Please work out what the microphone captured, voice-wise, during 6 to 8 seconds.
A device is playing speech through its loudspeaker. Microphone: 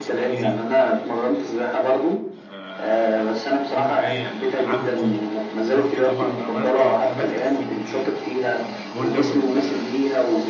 both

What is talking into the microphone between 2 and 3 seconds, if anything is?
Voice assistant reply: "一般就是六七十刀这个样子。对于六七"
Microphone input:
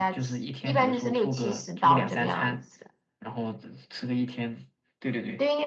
both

